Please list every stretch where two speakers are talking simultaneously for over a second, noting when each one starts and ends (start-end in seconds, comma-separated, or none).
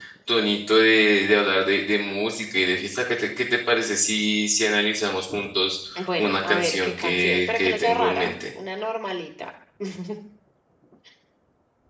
6.0-8.3